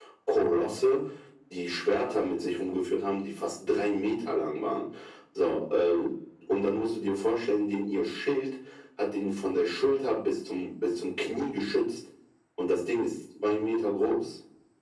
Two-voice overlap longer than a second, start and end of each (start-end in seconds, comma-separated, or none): none